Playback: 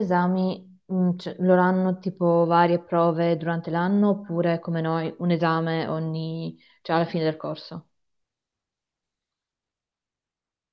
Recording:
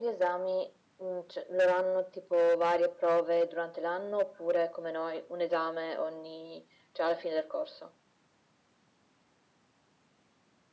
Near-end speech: none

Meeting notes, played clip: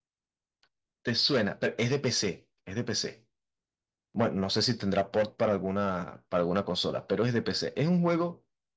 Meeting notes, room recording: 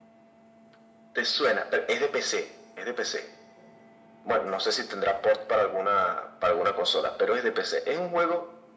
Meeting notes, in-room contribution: none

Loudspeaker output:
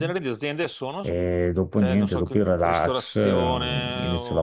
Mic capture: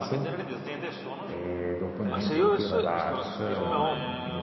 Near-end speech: present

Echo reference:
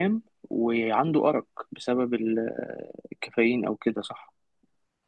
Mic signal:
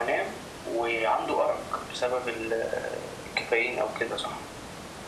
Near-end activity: none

